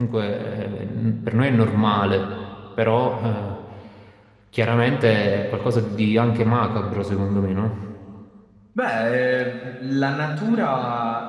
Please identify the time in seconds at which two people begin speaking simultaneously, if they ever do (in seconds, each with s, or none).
none